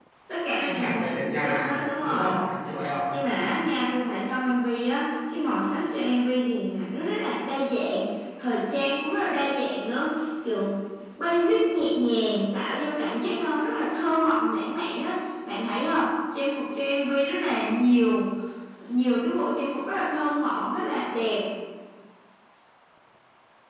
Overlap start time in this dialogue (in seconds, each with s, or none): 0.7 s